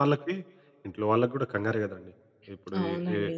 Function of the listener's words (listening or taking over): listening